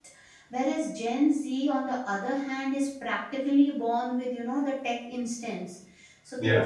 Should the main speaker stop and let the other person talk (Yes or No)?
No